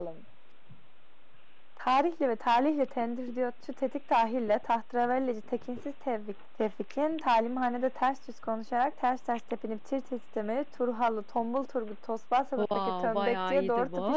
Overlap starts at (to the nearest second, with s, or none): 13 s